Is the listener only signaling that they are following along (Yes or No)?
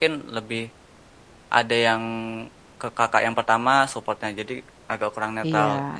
No